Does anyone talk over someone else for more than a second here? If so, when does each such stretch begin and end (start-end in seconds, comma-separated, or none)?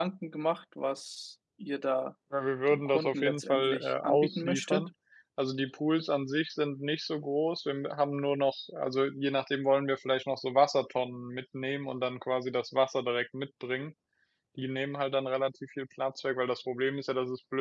2.7-4.9